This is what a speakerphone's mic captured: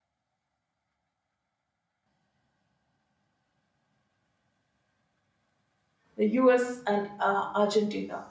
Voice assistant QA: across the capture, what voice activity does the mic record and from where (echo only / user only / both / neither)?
user only